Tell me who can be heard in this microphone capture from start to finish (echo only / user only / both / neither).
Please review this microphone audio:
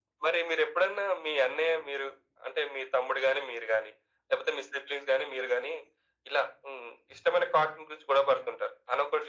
echo only